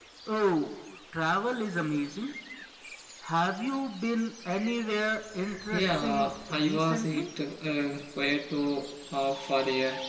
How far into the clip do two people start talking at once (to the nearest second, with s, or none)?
6 s